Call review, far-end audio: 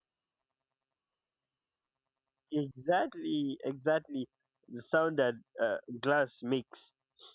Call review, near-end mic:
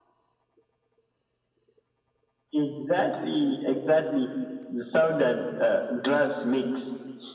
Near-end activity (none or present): none